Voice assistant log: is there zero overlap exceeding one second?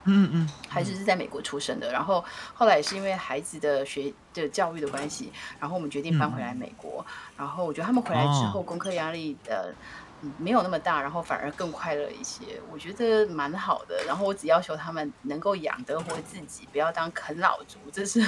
Yes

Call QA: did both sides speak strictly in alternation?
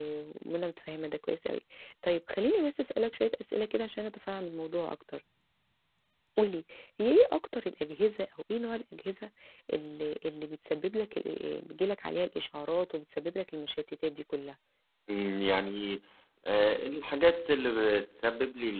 Yes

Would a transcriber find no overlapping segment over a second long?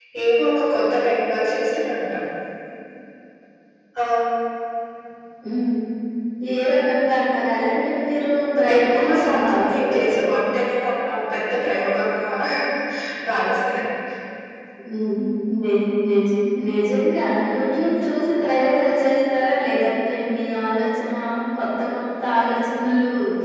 No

